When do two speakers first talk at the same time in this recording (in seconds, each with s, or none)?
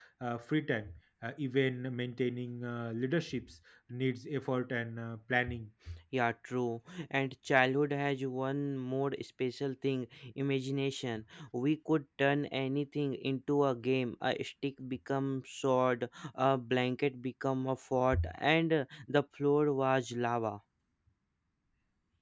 none